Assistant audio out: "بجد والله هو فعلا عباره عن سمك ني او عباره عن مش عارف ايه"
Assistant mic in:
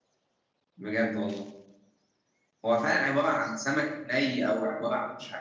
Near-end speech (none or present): none